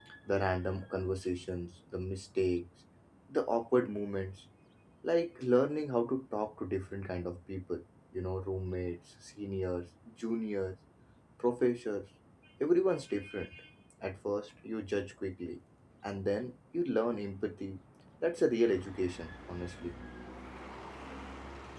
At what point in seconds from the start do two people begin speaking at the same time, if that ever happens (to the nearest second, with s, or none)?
none